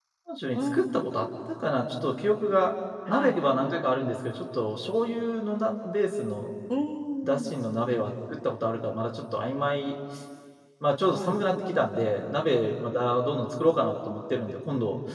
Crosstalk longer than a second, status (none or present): none